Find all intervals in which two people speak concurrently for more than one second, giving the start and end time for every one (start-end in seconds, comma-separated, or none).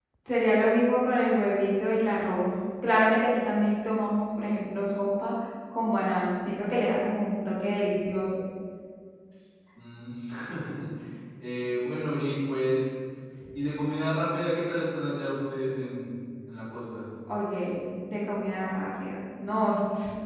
none